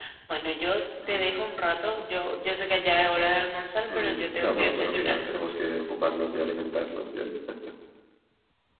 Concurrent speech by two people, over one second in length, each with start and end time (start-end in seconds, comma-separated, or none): 4.0-5.2